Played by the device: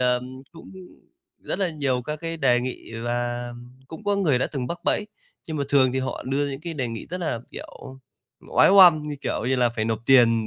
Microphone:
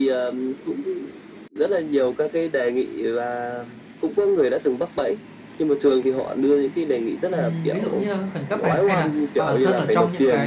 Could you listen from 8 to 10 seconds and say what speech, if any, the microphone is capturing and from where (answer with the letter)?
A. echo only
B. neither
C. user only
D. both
D